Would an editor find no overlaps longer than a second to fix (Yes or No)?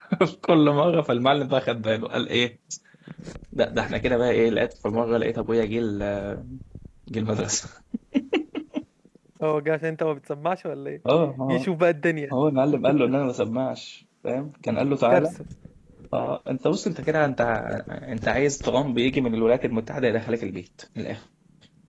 Yes